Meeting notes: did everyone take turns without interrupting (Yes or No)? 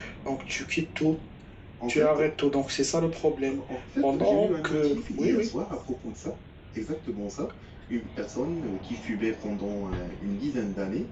No